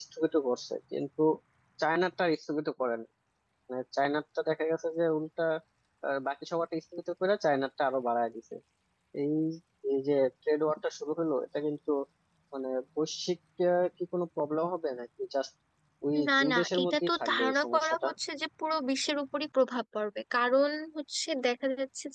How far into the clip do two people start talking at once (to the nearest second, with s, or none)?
16 s